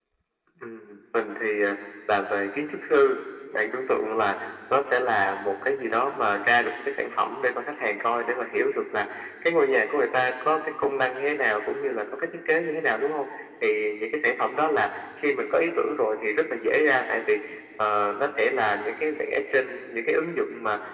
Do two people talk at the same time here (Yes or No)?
No